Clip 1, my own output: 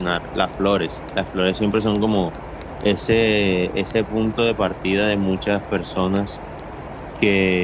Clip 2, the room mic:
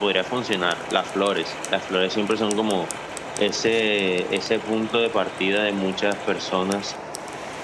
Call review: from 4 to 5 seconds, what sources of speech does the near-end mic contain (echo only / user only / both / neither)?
echo only